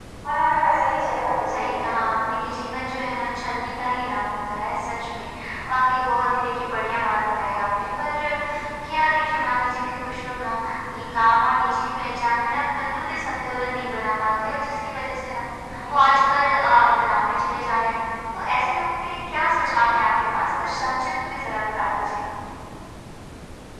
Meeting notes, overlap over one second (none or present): none